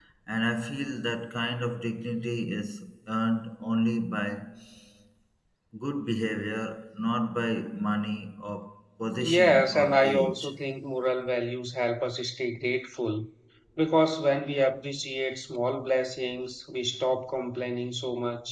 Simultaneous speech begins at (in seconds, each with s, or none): 9.2 s